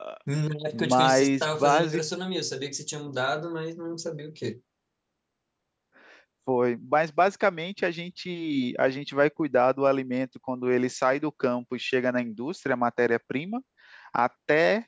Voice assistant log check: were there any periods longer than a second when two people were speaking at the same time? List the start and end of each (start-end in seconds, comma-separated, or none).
0.7-2.0